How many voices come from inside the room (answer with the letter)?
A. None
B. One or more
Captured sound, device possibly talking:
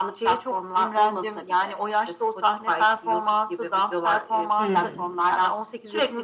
B